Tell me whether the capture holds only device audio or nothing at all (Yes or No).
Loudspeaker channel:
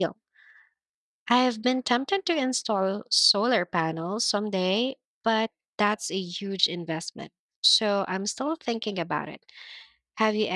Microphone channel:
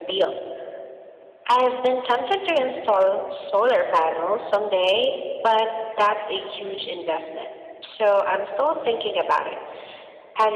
Yes